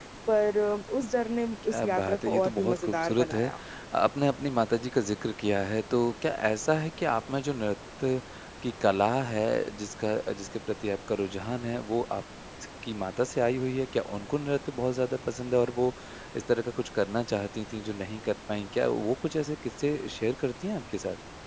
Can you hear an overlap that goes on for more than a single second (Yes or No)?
Yes